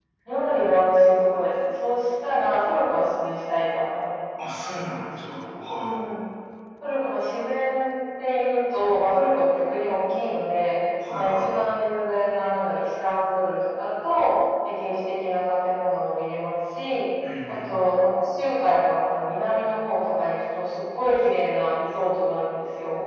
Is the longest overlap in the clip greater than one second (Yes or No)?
No